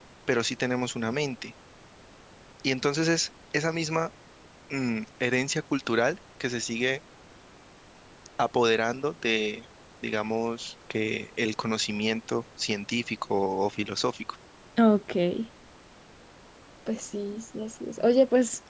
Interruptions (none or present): none